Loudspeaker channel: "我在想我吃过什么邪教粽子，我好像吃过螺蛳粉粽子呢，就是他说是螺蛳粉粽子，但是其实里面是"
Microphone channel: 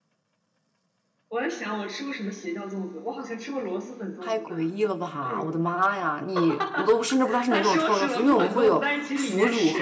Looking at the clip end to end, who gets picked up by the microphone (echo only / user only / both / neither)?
both